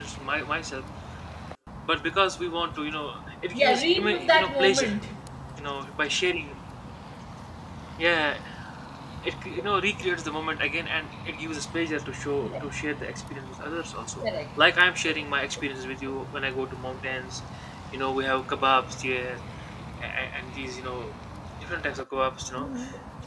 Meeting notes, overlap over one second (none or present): present